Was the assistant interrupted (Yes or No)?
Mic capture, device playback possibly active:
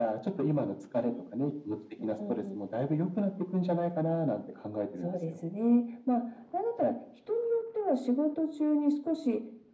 Yes